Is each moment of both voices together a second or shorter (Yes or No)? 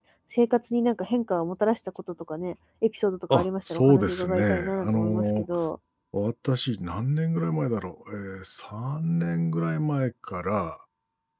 No